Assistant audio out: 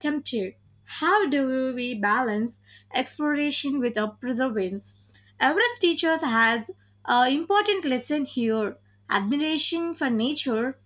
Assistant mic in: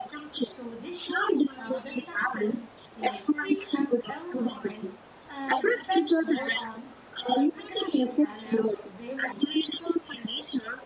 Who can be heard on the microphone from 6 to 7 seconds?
both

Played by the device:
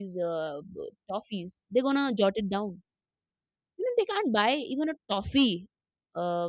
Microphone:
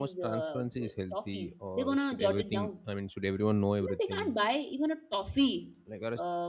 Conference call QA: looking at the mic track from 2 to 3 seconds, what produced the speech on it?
both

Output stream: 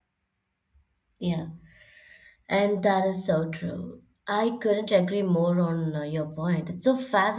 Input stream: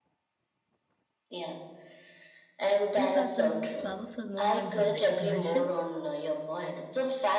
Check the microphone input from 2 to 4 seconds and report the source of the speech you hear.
both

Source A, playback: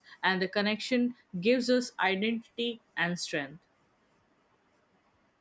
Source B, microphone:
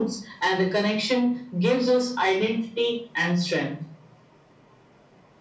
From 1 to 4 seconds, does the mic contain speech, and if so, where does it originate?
echo only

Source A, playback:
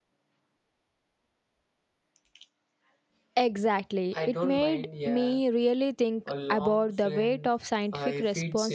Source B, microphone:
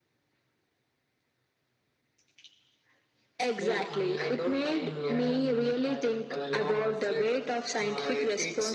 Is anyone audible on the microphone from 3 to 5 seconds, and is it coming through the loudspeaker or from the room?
both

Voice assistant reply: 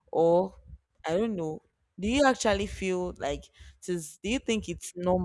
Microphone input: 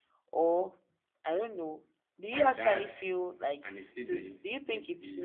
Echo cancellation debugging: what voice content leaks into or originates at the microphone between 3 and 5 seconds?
both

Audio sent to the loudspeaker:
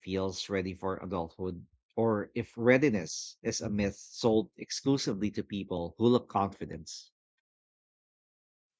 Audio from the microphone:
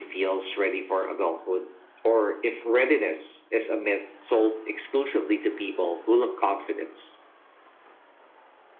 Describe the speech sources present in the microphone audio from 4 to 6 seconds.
echo only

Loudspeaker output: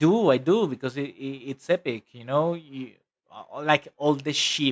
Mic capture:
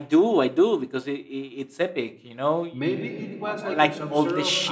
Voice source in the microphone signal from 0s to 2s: echo only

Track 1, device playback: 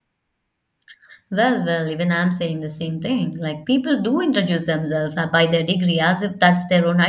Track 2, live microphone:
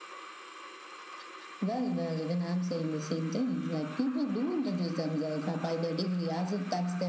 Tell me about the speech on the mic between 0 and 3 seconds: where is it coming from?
echo only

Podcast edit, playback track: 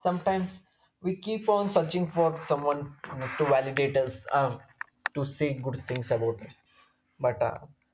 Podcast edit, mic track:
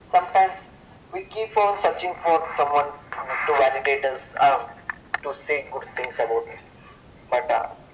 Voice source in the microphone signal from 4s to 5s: echo only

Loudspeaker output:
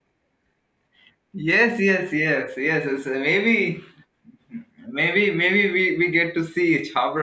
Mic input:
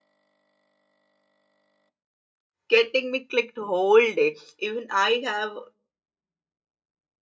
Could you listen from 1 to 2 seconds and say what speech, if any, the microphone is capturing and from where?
neither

